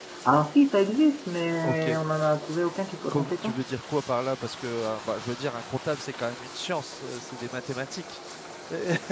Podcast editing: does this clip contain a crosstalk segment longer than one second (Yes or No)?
No